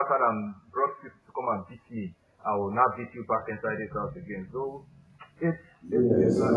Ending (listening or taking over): taking over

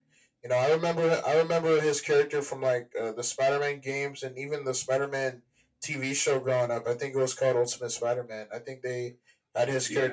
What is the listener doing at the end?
listening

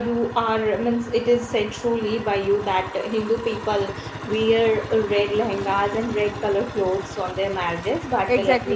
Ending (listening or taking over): taking over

